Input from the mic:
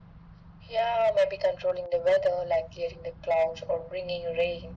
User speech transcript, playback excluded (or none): none